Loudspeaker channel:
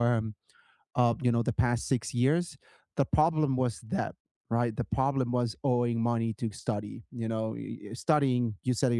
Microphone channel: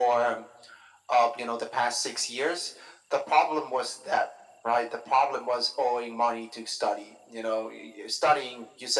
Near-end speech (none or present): none